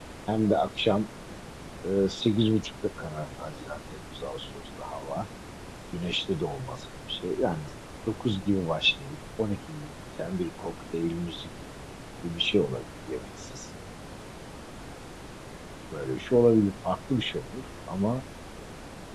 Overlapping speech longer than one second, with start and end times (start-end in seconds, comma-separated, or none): none